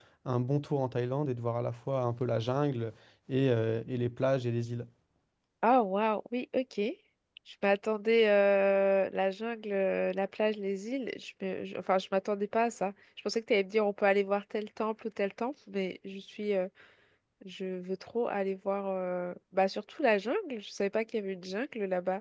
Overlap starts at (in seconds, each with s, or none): none